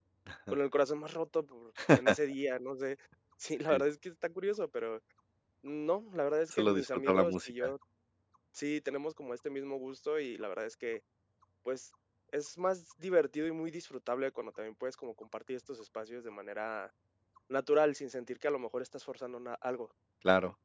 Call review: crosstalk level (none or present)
present